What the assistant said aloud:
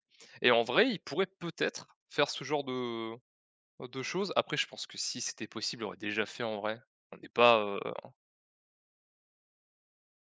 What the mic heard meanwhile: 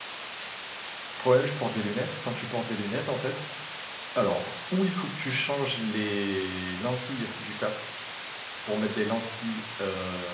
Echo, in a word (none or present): none